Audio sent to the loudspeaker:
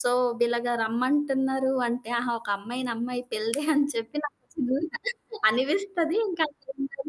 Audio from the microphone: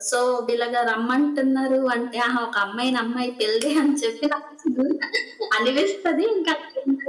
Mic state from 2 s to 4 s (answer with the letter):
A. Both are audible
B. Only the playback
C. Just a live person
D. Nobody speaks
B